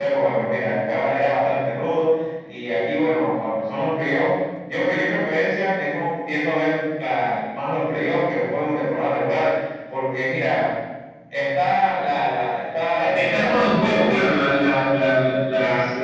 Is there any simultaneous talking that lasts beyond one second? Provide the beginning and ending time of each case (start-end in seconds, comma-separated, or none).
13.0-14.2